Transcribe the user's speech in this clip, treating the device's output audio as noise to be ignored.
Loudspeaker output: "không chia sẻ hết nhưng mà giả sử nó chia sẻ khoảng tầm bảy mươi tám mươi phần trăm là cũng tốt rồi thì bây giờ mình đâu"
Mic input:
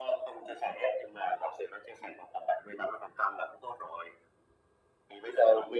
none

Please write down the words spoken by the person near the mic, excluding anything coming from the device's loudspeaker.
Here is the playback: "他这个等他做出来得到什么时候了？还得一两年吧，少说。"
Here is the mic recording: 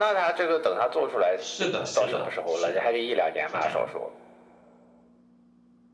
是的，是的，是的，是这样的。

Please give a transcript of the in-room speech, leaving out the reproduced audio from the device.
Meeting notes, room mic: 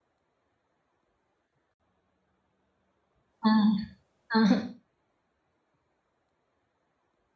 हाँ हाँ

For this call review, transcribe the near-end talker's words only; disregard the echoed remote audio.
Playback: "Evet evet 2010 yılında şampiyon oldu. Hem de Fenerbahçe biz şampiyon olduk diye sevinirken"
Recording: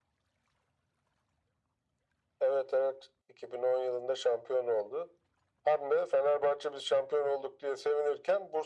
none

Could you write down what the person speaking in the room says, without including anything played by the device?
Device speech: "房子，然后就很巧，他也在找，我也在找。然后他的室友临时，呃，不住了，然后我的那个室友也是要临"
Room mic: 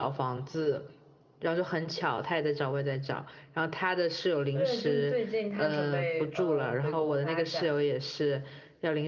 对，就是最近他准备呃回国发展，

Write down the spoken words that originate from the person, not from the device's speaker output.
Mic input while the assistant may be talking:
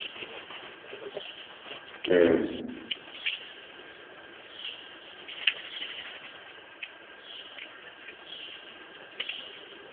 Hmm.

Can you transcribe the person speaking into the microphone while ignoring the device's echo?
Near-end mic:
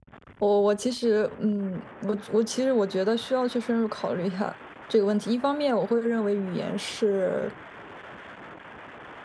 我我其实，嗯，我我其实我觉得需要去深入考虑一下这个问题。一方面，我会认为语言是

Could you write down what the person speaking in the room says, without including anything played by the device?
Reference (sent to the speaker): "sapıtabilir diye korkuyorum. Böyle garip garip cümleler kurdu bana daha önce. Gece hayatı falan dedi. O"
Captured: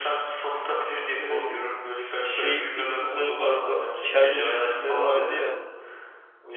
Eee, s- şey filmleri vardı. Çernobil filmleri vardı ya.

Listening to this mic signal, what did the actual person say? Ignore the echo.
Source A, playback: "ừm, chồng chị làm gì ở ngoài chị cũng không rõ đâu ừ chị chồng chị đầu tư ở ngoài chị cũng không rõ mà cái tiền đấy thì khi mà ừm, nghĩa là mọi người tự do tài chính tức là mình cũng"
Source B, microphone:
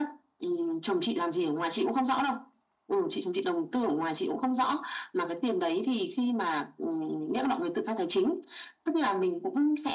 none

